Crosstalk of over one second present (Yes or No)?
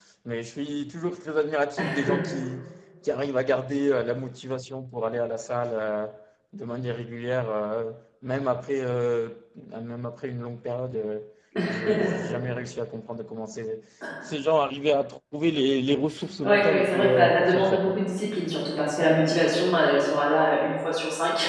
Yes